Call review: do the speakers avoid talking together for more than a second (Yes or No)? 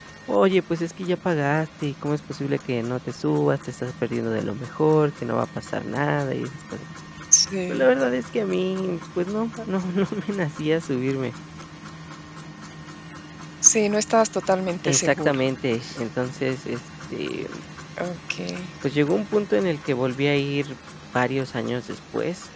Yes